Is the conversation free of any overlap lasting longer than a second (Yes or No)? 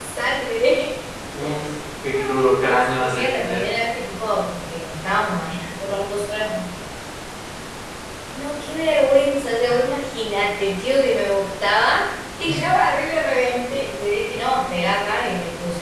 No